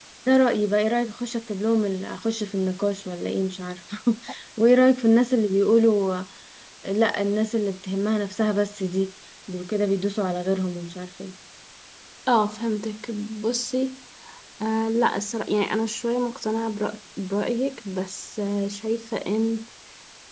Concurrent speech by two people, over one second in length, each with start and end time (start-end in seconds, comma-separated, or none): none